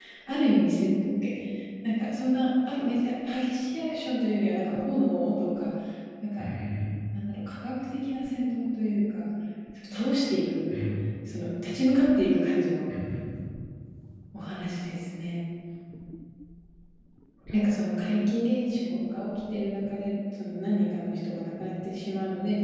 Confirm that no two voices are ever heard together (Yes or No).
Yes